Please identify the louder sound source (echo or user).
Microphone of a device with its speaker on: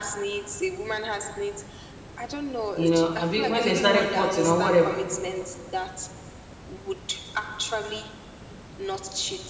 user